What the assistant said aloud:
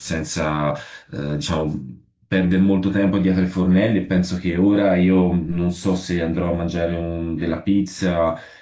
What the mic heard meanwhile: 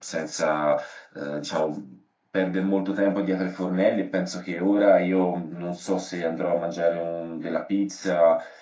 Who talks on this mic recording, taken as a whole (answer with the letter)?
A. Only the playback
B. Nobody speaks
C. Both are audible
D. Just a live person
A